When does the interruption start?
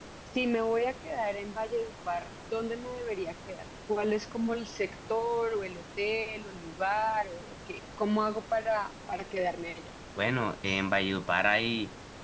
none

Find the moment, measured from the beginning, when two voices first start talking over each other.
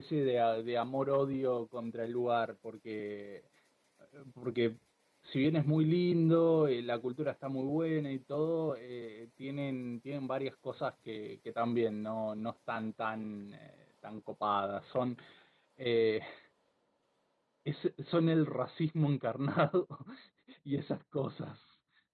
none

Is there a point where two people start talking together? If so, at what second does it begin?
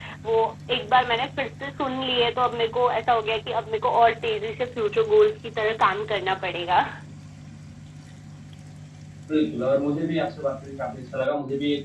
none

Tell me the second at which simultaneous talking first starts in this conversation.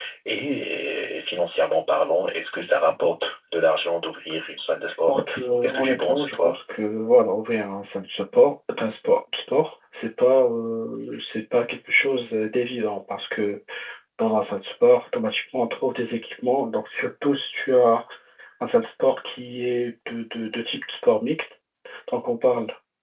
5.1 s

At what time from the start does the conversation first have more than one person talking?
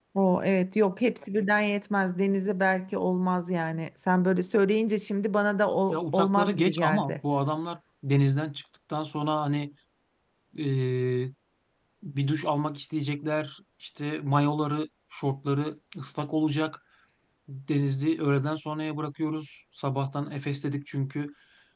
5.9 s

